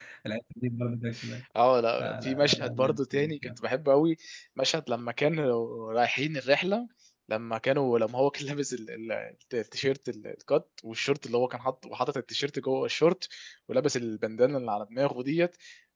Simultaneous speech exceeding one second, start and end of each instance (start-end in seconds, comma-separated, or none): 2.0-3.5